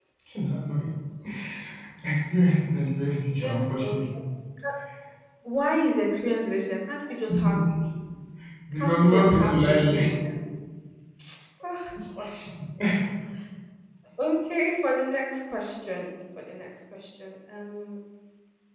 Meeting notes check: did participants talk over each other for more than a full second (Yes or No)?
Yes